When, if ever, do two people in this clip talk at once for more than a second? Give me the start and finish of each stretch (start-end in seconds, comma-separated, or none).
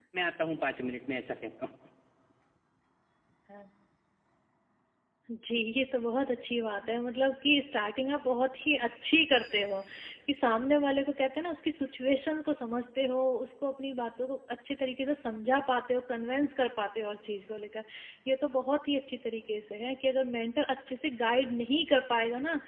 none